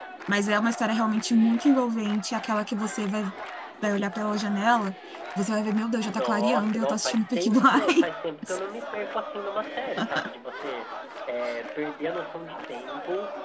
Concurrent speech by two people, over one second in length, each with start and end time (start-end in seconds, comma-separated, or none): 6.0-8.1